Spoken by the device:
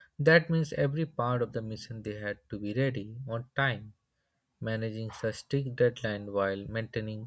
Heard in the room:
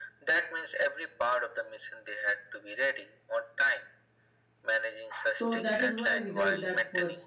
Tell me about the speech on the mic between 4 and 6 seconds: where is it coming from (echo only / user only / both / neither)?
both